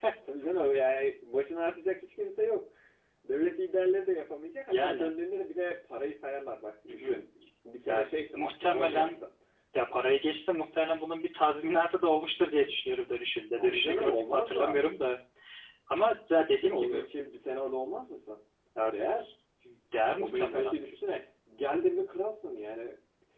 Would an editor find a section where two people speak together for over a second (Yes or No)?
Yes